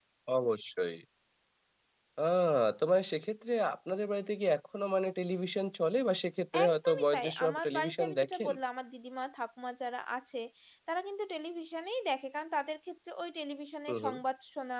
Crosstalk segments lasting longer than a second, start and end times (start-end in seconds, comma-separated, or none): 6.7-8.5